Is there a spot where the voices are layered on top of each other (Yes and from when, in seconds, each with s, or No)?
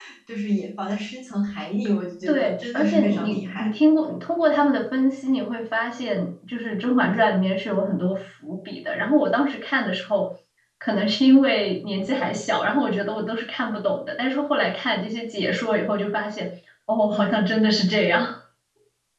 Yes, from 2.3 s